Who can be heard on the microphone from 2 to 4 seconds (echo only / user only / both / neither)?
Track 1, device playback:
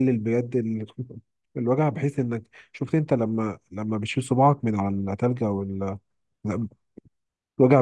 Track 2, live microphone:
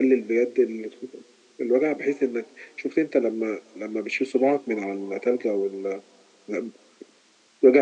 echo only